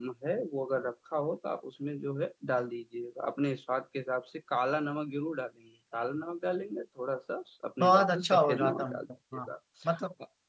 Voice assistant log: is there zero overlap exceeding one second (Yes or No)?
No